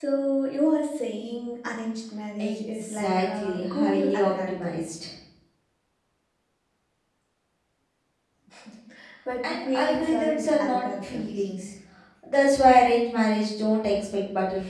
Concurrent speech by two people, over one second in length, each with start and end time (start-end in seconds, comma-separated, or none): 2.4-4.8, 9.4-11.4